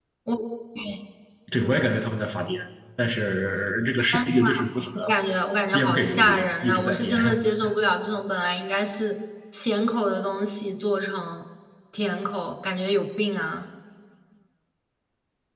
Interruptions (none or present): present